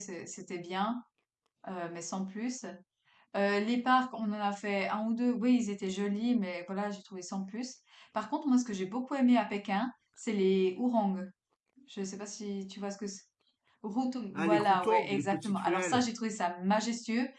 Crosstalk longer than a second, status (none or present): present